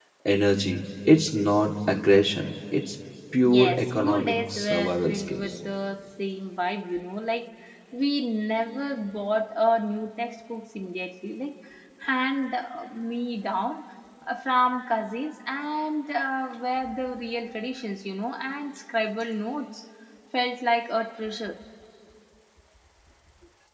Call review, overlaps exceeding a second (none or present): present